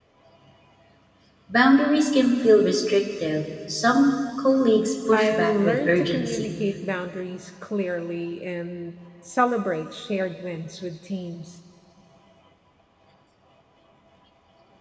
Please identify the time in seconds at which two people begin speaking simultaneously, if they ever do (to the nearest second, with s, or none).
5 s